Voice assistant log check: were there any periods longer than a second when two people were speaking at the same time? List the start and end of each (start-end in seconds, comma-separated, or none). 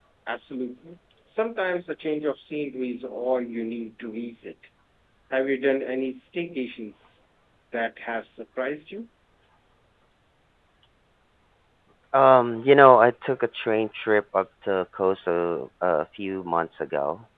none